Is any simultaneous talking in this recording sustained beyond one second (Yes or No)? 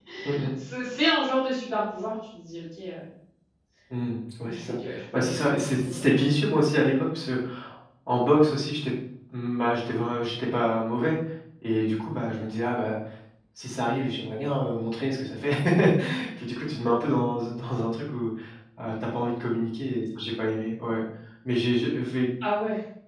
Yes